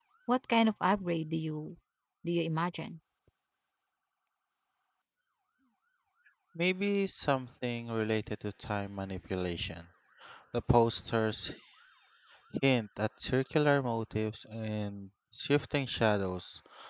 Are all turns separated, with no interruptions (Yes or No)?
Yes